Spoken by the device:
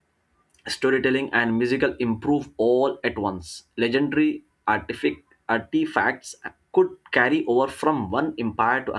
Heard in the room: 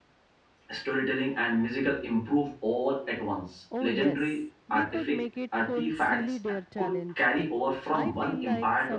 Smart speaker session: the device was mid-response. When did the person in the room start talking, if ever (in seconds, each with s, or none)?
3.7 s